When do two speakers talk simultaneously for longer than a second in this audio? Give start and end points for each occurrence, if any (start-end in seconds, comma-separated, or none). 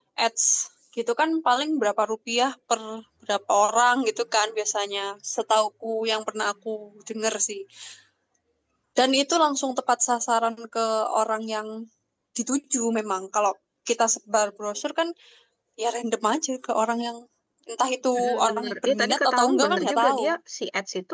18.1-20.3